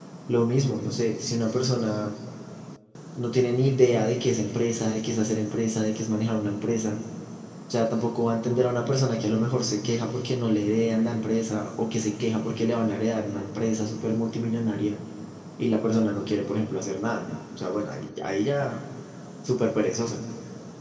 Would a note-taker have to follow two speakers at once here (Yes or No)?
No